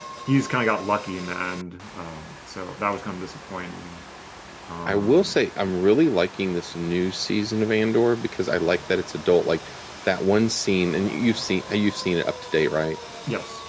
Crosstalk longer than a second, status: none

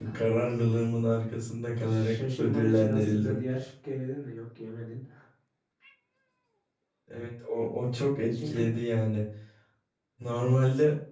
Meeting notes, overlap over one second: present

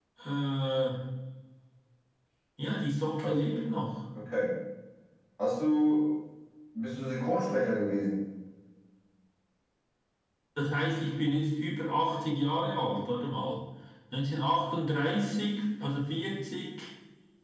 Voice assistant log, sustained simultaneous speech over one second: none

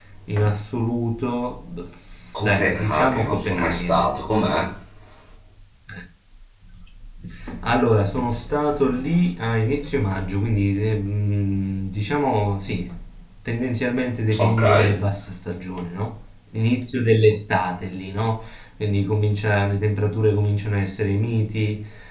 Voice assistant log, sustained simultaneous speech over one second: present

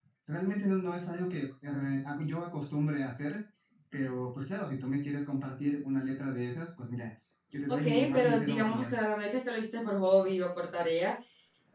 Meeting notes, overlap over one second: present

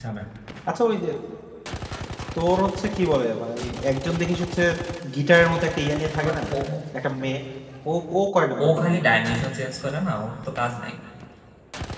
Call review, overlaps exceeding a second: none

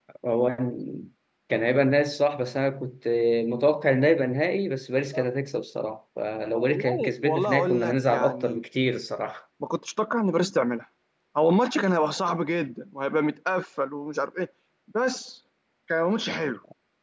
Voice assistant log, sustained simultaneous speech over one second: present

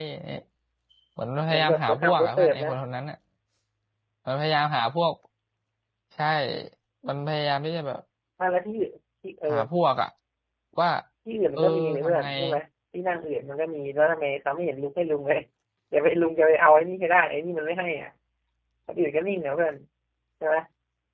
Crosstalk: present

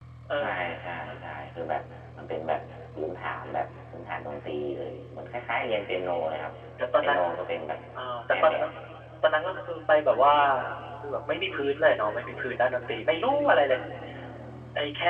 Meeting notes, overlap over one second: none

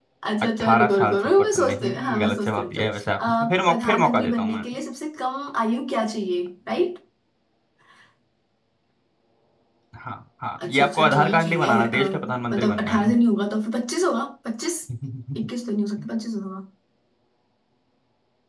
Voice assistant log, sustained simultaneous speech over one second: present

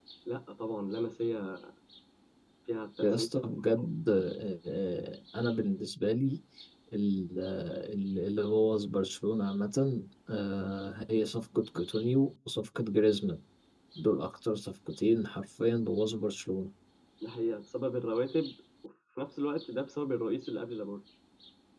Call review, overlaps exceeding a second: none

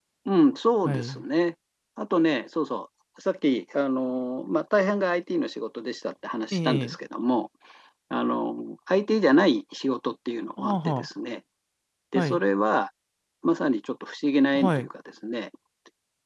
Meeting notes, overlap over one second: none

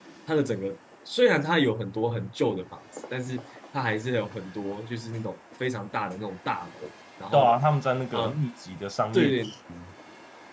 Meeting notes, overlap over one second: none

